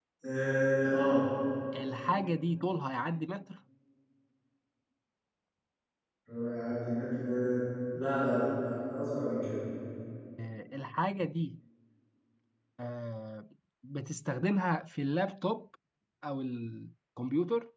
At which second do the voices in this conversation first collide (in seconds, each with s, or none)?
none